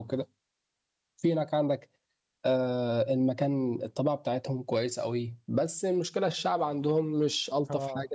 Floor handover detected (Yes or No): No